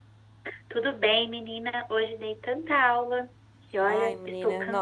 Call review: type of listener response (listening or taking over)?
taking over